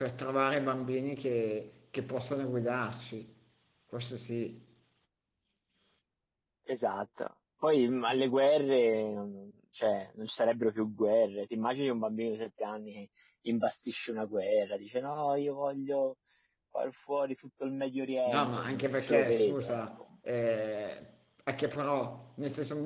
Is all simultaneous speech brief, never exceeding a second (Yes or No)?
No